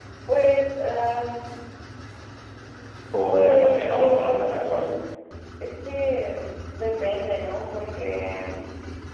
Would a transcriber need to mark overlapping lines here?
Yes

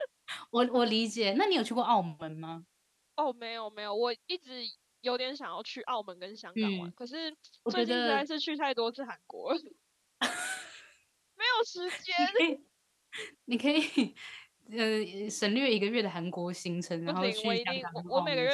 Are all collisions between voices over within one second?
No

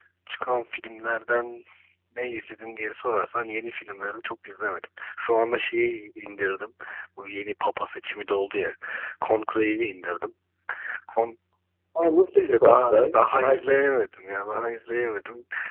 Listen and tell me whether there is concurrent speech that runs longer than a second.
Yes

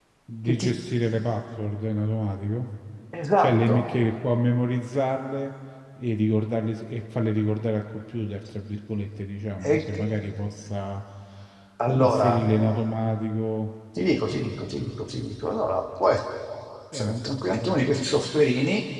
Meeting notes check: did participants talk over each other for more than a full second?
No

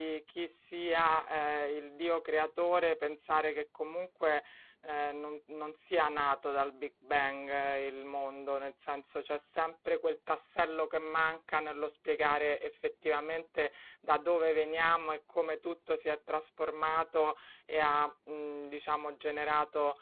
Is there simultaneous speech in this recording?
No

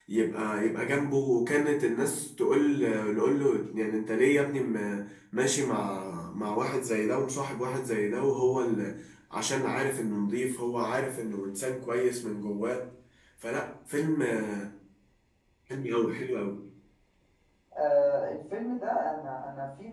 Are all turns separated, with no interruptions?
Yes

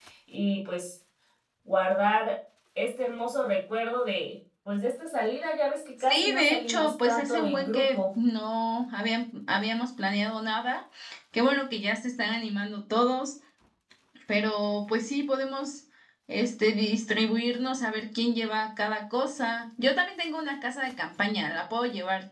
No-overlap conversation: No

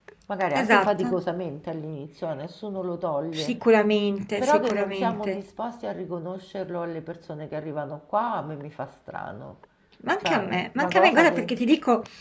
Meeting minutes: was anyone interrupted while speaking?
Yes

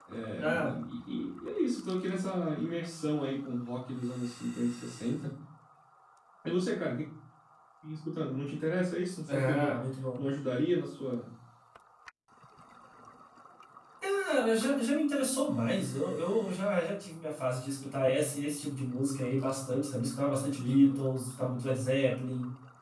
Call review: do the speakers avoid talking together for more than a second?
Yes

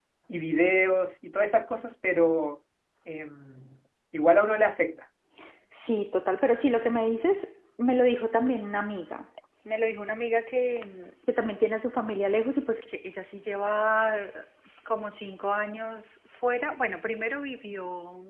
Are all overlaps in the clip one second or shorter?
Yes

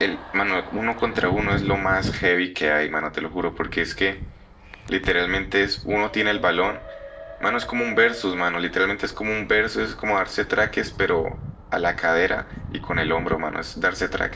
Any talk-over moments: No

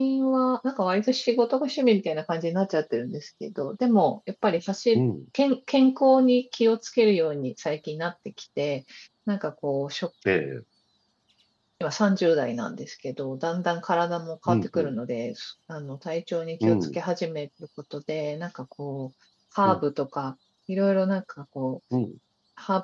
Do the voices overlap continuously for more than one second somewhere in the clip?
No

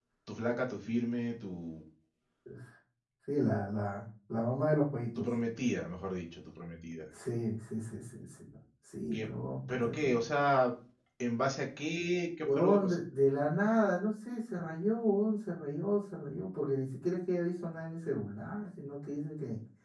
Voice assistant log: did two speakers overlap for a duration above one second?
No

